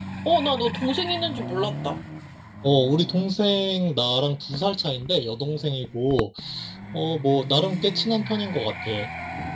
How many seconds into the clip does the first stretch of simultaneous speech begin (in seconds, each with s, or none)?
none